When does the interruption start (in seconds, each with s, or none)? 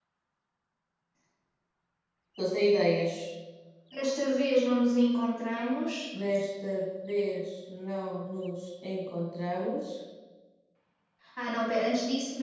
none